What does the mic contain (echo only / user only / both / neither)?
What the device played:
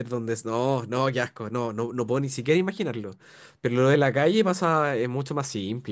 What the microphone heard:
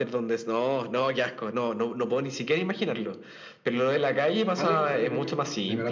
both